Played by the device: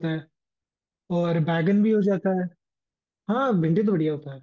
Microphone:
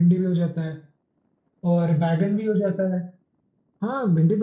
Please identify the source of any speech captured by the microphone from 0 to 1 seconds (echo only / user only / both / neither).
echo only